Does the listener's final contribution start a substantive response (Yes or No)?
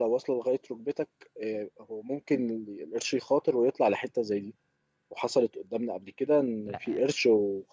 No